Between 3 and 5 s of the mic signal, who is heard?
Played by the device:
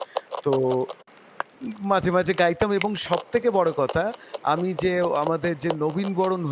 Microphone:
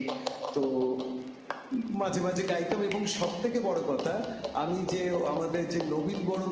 echo only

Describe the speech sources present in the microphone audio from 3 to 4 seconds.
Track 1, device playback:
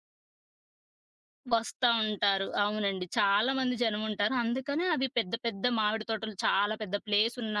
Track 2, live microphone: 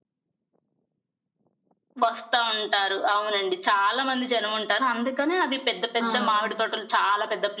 echo only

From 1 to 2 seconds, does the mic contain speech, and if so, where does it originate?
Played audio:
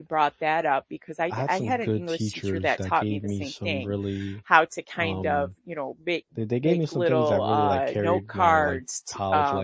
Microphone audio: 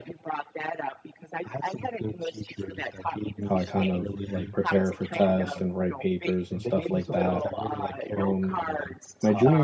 echo only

